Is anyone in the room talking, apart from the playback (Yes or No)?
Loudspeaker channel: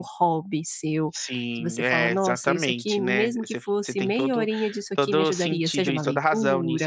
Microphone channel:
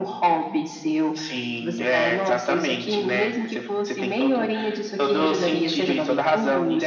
No